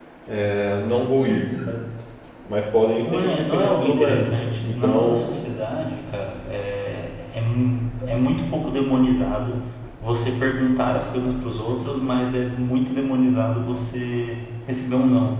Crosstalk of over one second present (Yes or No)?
Yes